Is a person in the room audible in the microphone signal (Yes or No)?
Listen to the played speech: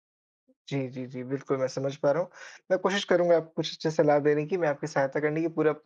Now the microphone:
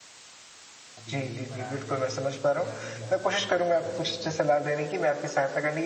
Yes